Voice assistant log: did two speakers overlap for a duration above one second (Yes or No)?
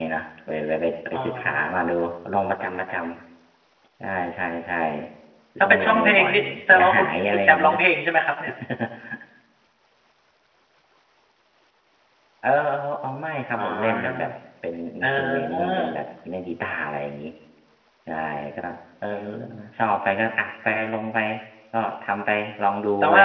Yes